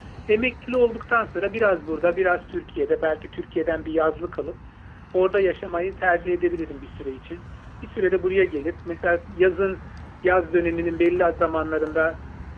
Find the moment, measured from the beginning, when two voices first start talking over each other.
none

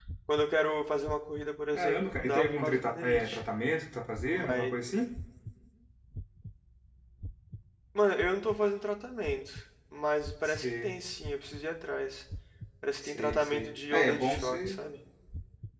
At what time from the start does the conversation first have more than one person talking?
1.7 s

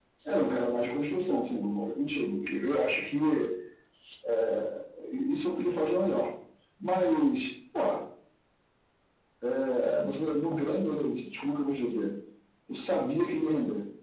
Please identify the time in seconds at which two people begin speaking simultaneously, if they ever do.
none

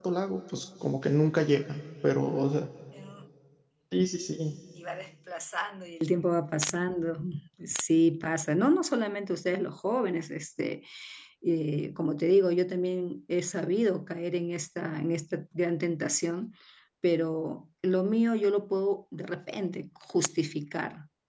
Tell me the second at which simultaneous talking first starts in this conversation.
none

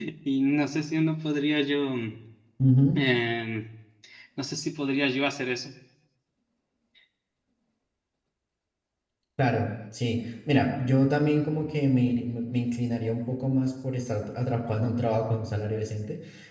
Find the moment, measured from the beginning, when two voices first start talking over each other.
none

